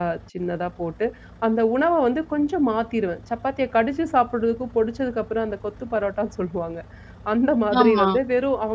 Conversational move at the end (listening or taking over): listening